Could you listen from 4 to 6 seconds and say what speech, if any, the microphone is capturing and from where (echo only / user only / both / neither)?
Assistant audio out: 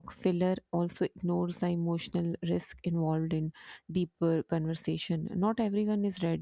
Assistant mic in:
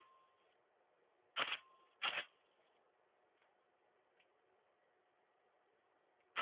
neither